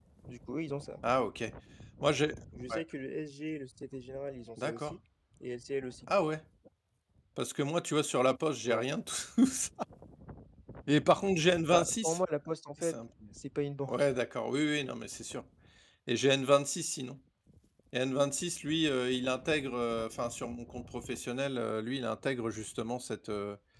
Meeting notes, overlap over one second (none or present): none